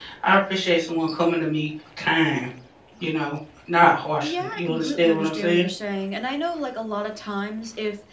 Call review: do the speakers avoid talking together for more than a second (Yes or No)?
No